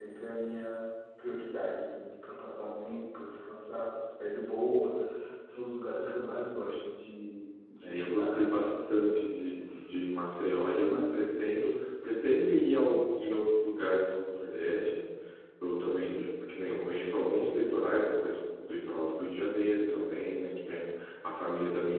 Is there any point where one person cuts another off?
Yes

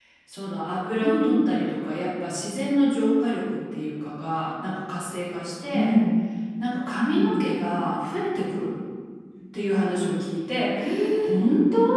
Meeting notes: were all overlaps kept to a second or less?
Yes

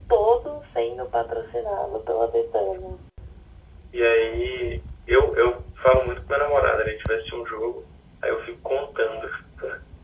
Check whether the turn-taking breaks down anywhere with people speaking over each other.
No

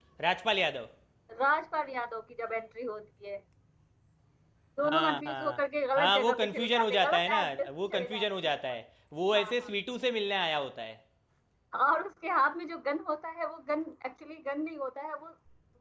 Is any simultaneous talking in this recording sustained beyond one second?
Yes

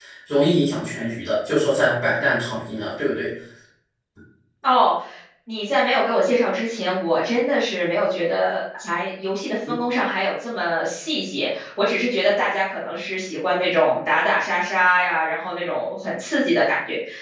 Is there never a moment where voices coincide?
Yes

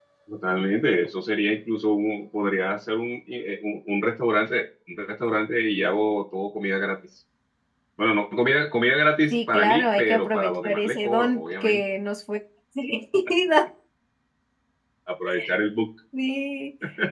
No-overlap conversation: No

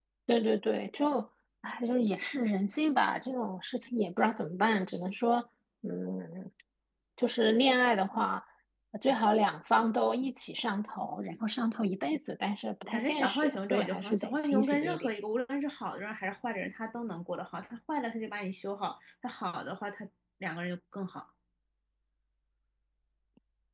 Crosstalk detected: Yes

